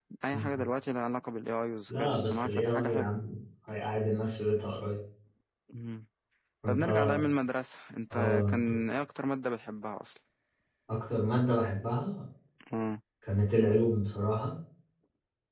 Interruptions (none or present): present